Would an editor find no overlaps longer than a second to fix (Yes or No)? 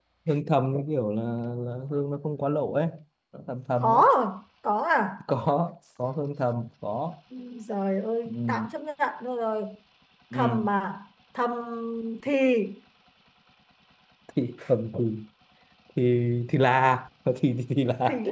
Yes